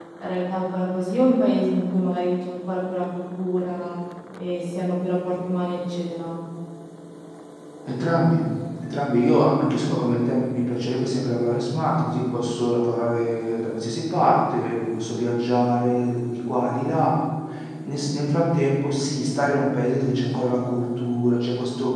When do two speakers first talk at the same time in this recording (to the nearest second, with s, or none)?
none